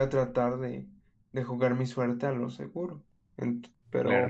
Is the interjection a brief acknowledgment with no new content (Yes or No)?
Yes